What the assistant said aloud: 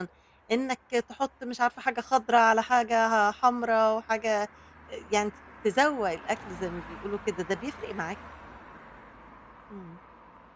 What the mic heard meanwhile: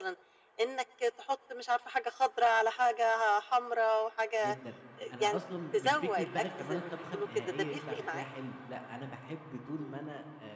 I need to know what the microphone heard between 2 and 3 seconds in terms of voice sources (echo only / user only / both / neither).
echo only